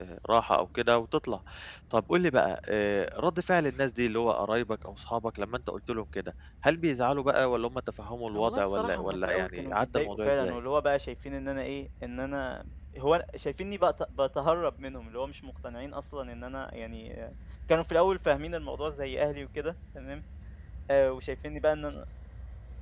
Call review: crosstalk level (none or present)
present